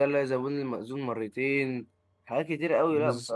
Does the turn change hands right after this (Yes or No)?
No